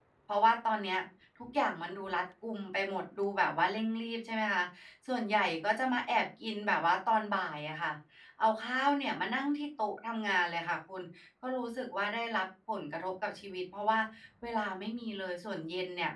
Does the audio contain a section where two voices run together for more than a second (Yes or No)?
No